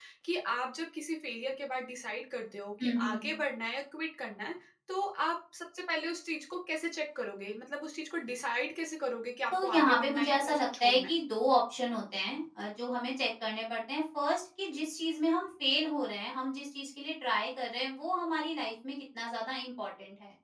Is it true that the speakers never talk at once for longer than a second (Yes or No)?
No